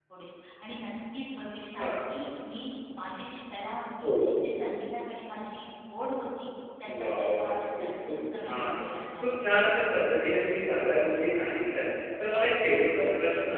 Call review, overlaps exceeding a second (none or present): present